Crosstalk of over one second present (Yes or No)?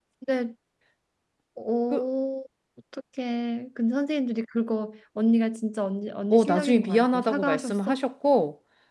Yes